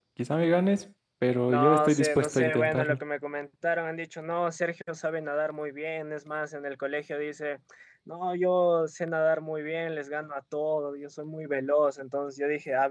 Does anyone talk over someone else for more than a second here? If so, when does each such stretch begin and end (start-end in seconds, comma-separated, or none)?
1.5-3.0